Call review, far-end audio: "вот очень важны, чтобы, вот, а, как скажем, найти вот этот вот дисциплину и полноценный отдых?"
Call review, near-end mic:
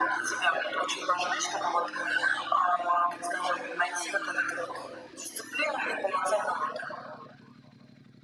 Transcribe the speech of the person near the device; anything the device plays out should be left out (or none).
none